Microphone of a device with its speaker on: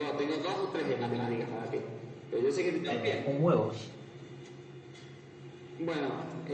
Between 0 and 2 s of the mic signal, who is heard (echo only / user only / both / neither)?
echo only